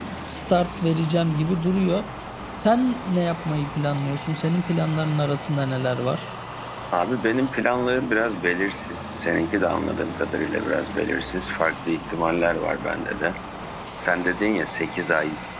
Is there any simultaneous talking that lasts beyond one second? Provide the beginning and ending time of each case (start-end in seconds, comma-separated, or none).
none